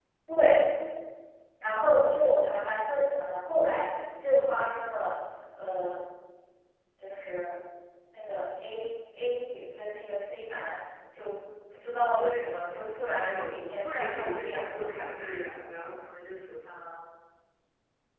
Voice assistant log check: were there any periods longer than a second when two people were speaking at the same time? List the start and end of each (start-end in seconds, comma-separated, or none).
13.1-14.9